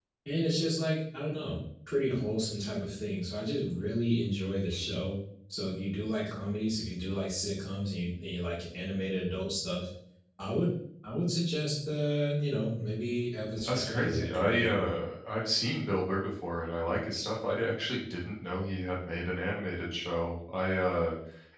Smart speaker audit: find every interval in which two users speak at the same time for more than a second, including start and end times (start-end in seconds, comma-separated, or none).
13.6-15.0